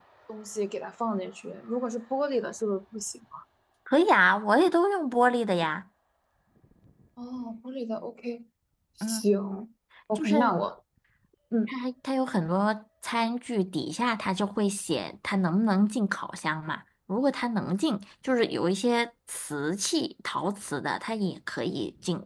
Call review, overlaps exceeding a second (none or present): none